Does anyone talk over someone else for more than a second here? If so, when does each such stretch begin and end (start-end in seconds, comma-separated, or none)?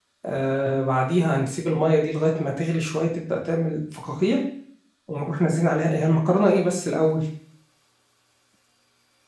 none